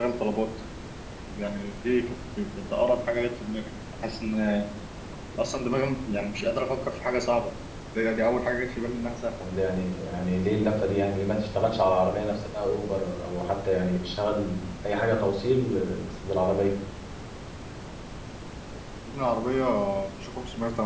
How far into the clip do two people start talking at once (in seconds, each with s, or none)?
none